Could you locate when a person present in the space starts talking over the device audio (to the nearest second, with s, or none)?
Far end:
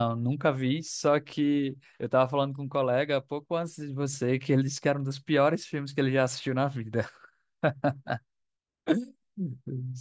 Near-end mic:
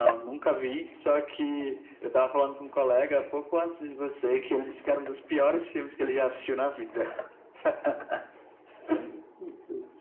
none